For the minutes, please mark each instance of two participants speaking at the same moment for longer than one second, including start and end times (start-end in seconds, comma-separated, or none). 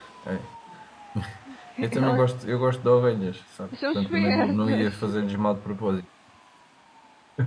3.7-5.0